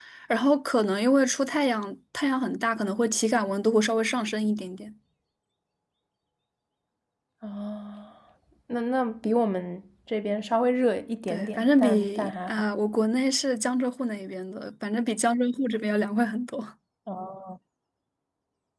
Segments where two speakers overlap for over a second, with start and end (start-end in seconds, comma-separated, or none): 11.3-12.6